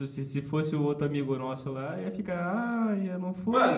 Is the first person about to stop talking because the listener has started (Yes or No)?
Yes